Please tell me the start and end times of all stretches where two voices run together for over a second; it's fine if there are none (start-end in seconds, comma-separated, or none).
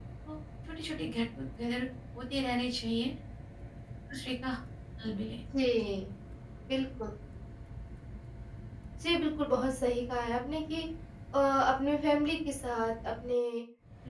none